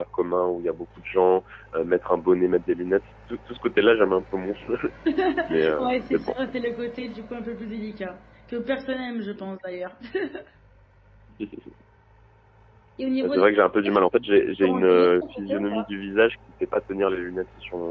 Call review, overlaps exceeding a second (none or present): present